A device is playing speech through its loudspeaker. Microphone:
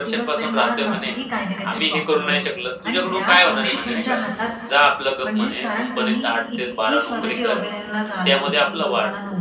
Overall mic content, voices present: both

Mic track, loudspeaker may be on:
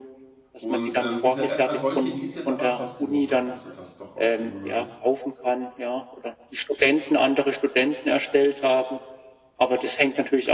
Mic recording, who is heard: both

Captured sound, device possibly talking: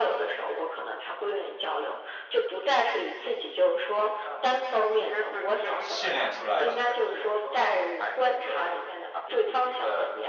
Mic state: both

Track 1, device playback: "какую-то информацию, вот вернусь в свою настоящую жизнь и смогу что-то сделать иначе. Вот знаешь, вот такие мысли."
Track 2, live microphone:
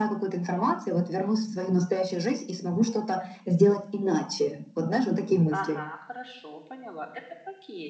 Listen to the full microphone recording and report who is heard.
both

